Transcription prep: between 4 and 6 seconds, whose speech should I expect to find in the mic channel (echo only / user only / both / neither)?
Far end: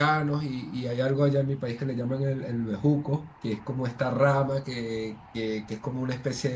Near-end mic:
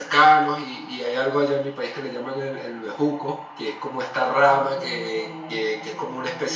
both